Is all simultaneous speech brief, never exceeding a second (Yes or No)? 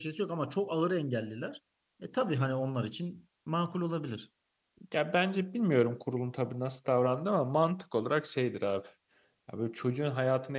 Yes